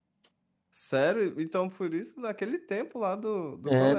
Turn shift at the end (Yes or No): Yes